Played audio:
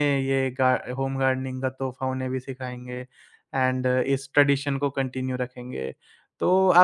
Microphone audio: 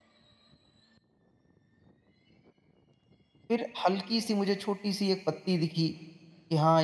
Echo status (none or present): none